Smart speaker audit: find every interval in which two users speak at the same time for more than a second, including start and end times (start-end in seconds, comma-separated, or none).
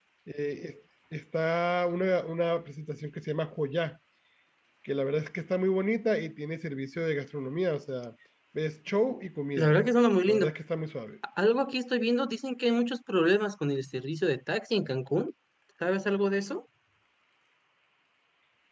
none